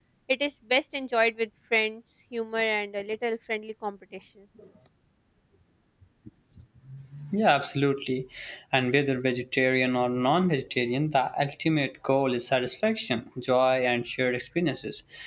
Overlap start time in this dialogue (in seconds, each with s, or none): none